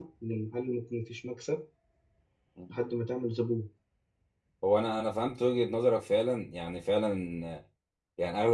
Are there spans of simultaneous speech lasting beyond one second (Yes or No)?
No